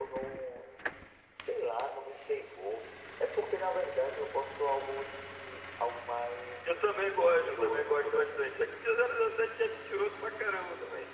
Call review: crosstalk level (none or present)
present